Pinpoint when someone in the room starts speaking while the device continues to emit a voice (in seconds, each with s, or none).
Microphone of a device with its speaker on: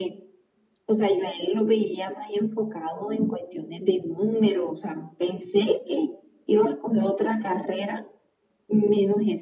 none